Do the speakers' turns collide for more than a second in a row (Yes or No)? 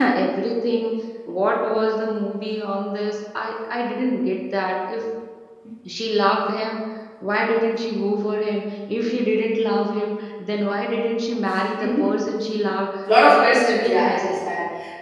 Yes